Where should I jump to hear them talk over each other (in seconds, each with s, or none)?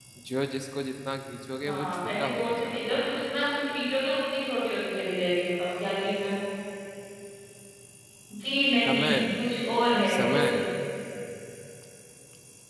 1.6 s